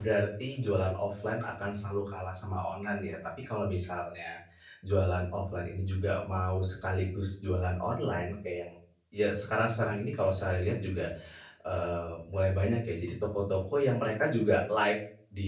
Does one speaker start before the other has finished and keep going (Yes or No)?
No